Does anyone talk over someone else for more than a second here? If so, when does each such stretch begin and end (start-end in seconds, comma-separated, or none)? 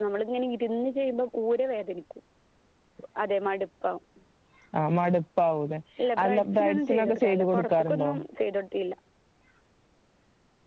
6.2-8.1